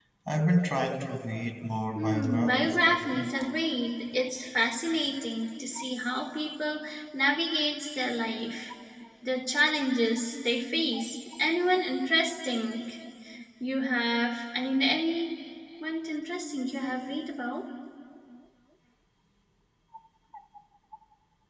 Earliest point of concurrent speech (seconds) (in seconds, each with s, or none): 2.0 s